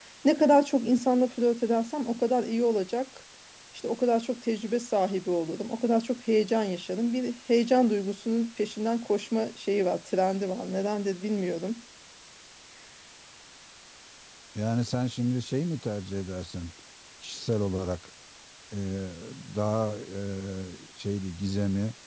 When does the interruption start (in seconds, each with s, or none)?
none